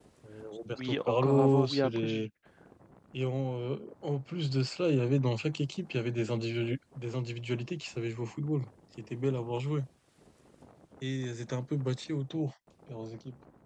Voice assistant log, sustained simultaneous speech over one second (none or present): present